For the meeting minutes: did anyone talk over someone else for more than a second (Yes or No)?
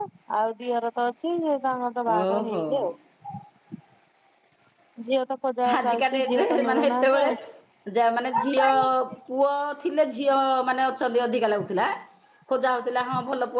Yes